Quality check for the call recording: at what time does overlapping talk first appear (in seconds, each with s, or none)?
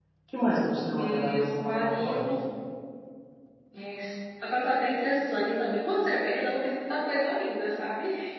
1.0 s